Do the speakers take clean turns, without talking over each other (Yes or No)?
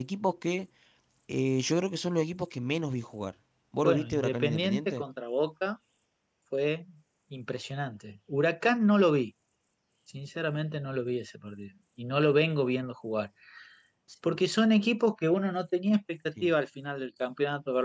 No